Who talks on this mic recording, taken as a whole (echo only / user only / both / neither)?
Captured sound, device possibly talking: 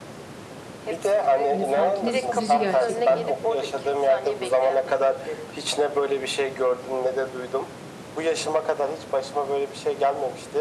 both